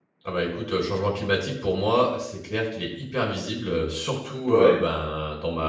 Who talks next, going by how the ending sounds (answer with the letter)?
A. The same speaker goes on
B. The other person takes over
A